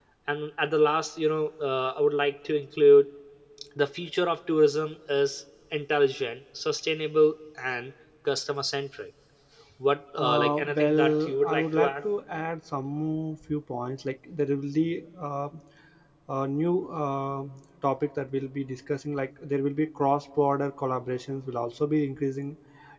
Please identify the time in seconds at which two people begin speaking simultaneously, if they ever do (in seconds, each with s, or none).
10.2 s